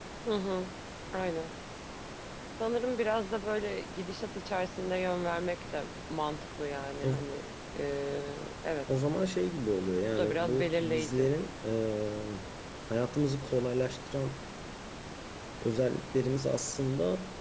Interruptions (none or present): present